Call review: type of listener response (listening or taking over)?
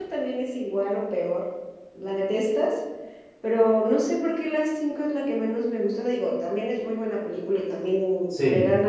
listening